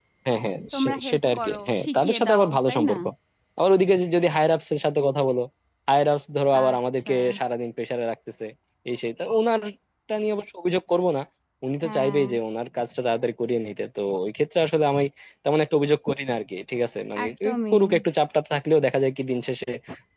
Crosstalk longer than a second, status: present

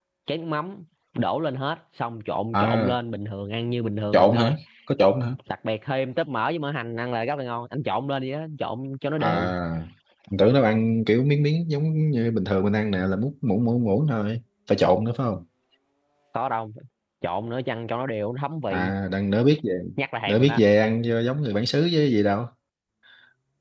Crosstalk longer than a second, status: none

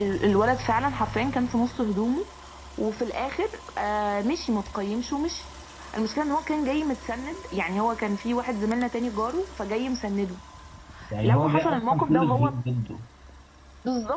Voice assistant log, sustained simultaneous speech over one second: present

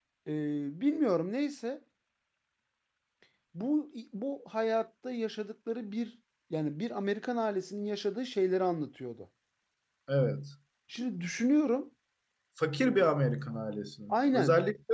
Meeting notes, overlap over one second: none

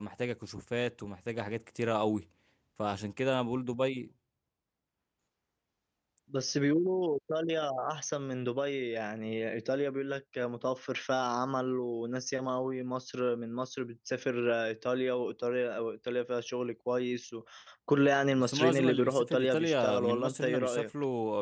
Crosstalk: present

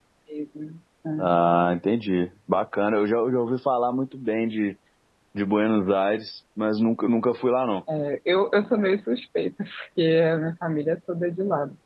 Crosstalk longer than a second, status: none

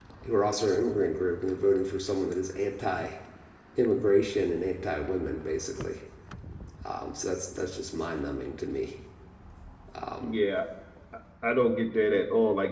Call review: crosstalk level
none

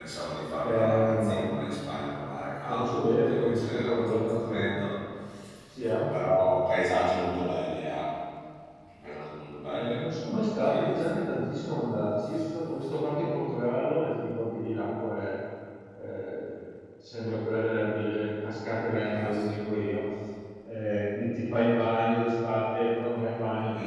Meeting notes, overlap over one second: present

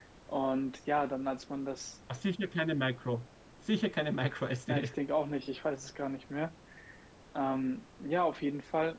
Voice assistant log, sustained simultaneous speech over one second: none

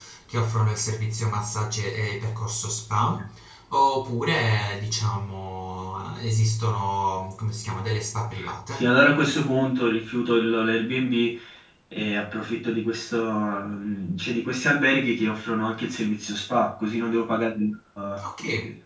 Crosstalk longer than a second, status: none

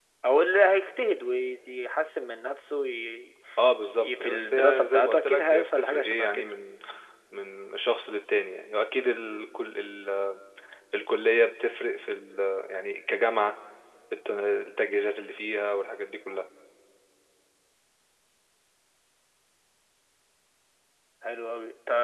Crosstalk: present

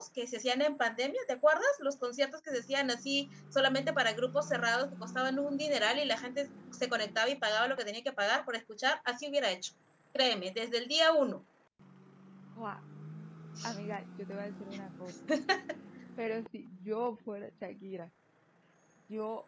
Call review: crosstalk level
none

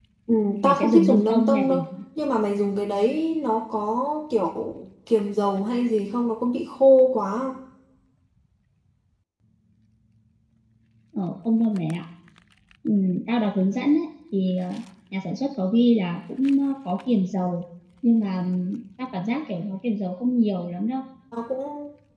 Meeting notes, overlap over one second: present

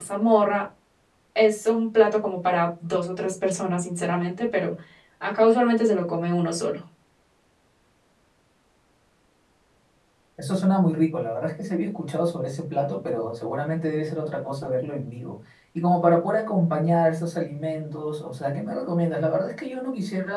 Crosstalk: none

